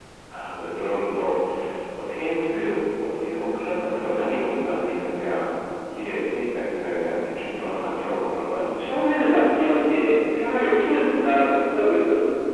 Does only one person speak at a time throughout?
Yes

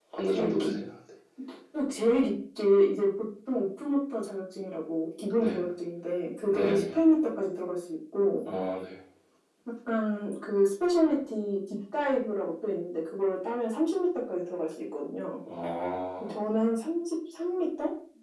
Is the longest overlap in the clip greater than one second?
No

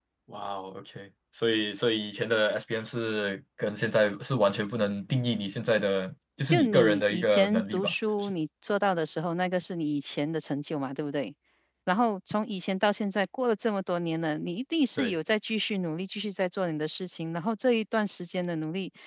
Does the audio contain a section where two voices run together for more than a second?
Yes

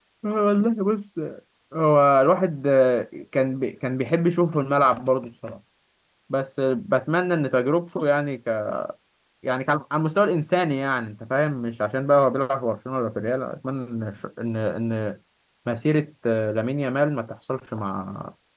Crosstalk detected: No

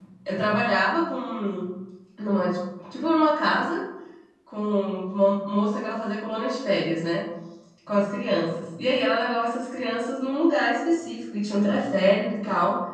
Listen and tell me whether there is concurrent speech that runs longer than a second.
No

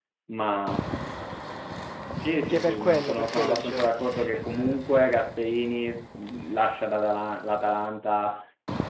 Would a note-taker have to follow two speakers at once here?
Yes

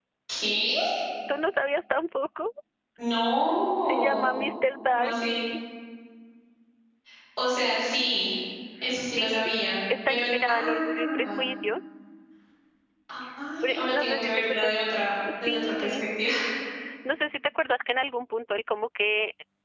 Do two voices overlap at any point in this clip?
Yes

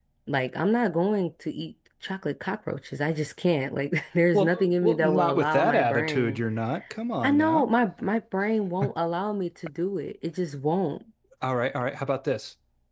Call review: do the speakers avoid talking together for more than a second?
No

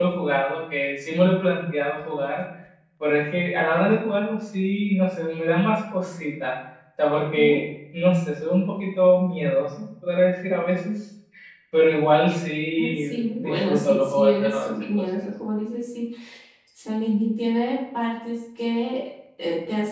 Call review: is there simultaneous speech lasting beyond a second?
Yes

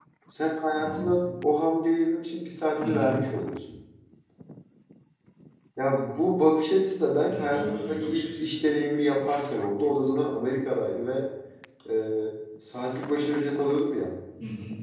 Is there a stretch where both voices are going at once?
Yes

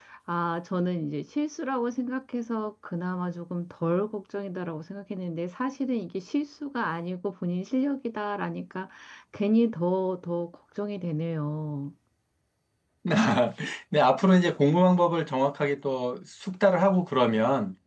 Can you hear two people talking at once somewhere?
No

